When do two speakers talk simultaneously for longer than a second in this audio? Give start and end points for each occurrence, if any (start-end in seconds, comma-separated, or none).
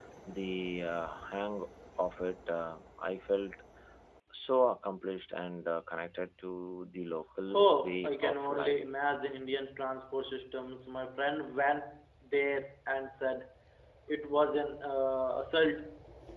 7.5-8.8